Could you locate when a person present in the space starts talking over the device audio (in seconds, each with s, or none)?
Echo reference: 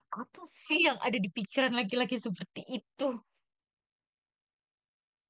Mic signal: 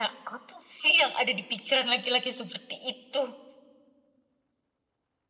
none